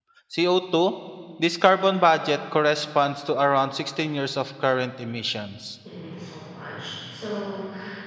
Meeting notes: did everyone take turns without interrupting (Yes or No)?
Yes